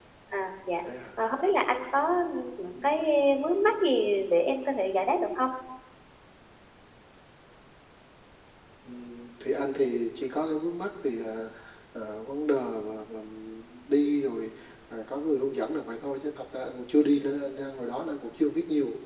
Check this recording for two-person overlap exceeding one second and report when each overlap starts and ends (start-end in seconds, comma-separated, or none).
none